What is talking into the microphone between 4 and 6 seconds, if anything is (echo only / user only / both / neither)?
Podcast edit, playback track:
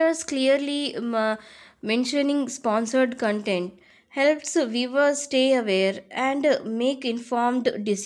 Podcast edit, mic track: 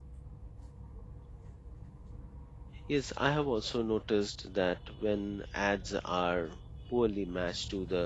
user only